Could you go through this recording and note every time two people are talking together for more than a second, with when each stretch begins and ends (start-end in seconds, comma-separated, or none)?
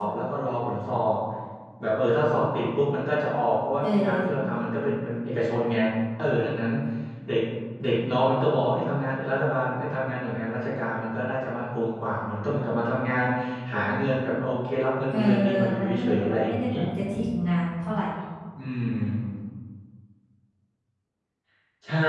15.1-16.7